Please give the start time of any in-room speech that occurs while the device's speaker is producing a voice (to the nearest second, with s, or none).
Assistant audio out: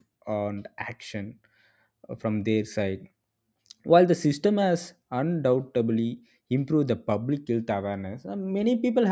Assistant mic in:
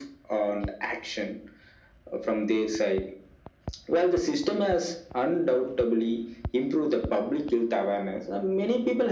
none